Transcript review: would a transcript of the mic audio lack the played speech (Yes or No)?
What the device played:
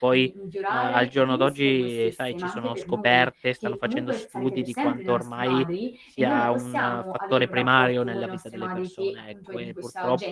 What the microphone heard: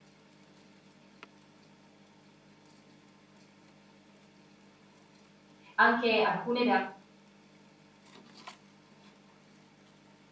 Yes